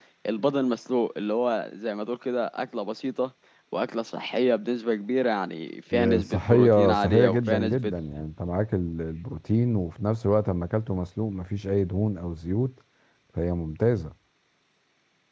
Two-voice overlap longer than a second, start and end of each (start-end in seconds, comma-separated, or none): 6.2-7.9